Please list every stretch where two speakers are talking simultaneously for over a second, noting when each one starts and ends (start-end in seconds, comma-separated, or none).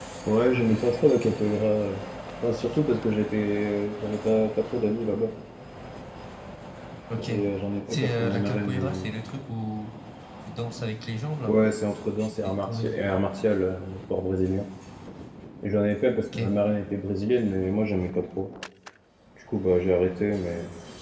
7.9-9.1